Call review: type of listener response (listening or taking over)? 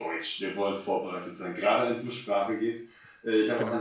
listening